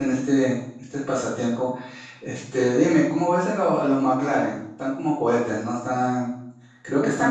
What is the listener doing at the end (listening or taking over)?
taking over